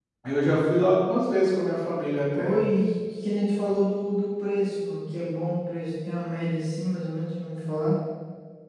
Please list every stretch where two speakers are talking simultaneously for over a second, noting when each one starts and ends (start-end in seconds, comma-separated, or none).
none